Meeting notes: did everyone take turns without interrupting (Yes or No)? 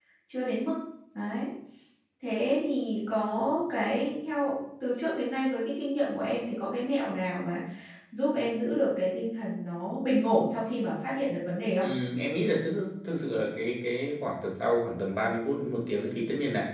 Yes